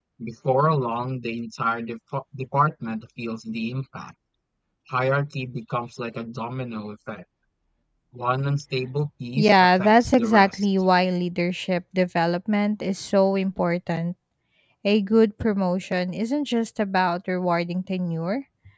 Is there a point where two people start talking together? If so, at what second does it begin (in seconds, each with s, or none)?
9.4 s